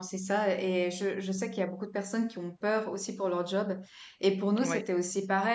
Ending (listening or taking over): listening